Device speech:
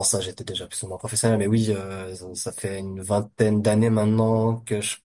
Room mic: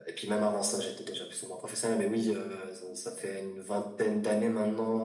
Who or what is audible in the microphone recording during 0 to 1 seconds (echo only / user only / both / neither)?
echo only